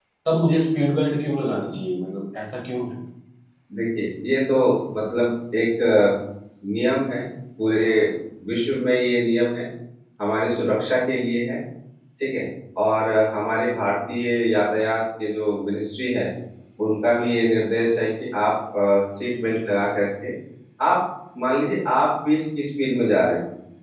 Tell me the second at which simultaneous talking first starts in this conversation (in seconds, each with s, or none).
none